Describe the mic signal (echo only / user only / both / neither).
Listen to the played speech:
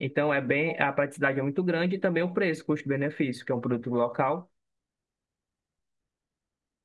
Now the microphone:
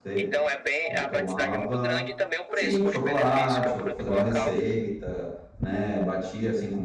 both